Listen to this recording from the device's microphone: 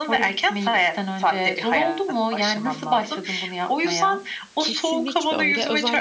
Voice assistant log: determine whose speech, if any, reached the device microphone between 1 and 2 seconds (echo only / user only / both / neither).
echo only